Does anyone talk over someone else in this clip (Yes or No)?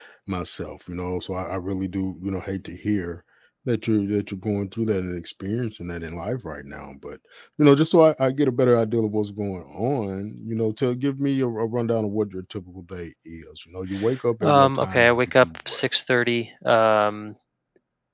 Yes